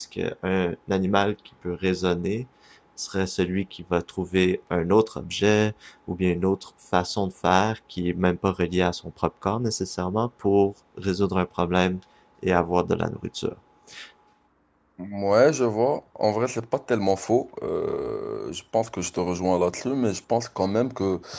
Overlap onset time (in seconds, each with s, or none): none